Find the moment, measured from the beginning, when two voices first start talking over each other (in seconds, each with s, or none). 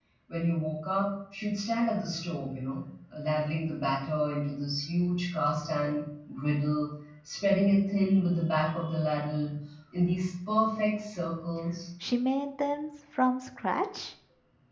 none